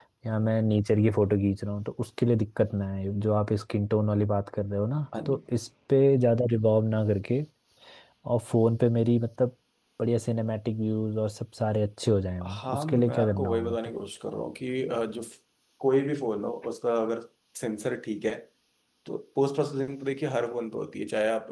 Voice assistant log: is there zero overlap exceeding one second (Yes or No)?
No